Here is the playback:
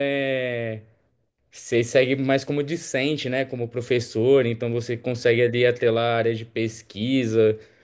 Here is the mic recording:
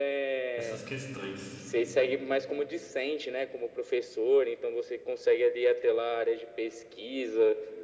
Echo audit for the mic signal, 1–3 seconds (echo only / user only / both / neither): both